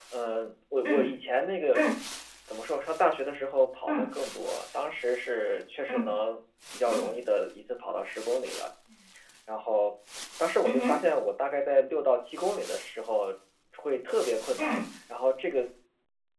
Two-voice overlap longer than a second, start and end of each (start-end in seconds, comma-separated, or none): none